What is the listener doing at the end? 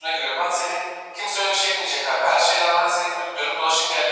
listening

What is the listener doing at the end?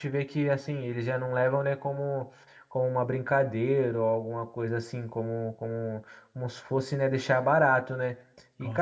listening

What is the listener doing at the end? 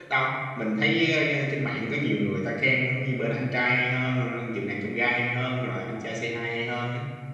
listening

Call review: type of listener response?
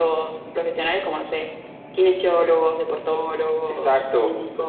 taking over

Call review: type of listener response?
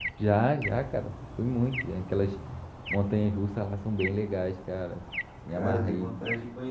taking over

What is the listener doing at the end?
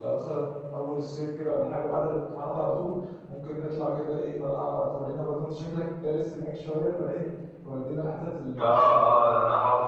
taking over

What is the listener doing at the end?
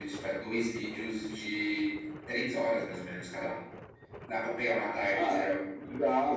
taking over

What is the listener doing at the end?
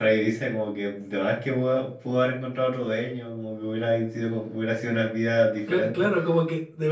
taking over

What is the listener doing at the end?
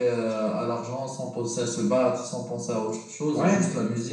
listening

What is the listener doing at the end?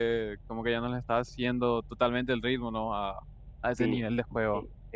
taking over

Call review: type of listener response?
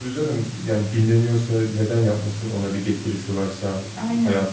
listening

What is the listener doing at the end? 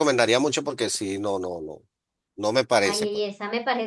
taking over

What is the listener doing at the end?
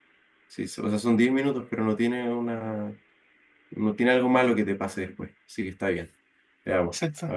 listening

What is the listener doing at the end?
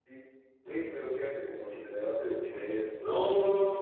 taking over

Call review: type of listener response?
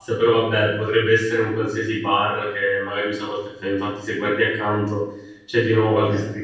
listening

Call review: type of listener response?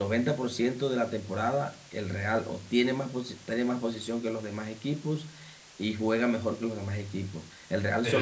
taking over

